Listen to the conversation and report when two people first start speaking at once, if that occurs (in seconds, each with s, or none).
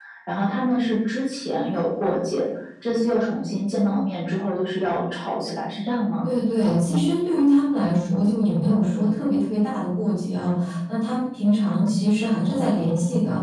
none